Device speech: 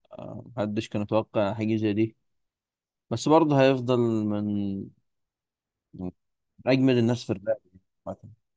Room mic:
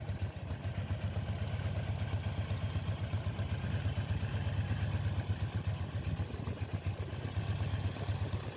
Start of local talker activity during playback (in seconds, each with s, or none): none